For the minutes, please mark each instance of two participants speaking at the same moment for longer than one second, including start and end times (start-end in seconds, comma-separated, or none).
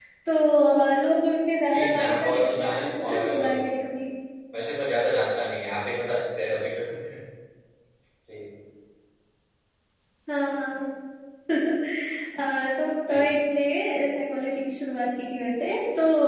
1.7-3.7